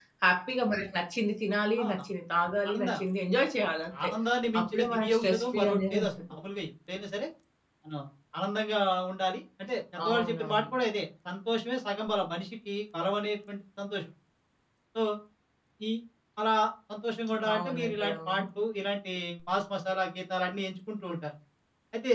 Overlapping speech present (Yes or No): Yes